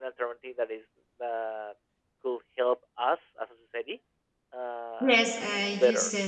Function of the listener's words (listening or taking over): taking over